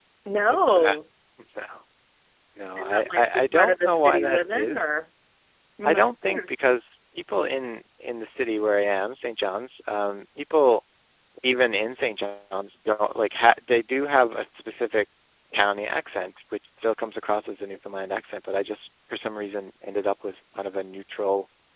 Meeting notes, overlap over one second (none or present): present